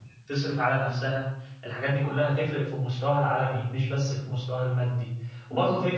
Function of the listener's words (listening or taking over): listening